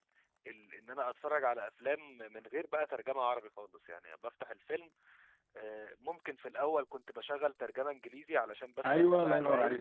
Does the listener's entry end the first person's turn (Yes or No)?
Yes